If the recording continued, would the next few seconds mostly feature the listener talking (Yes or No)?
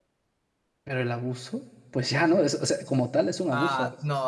Yes